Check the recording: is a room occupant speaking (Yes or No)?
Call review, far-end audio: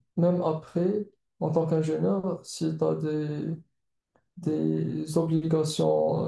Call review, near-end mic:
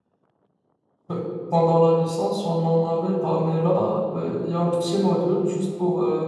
Yes